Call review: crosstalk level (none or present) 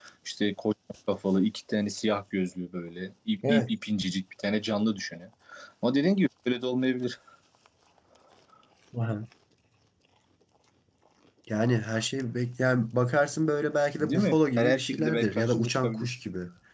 present